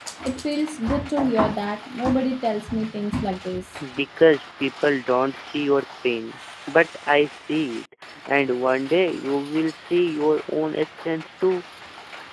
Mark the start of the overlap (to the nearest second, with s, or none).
none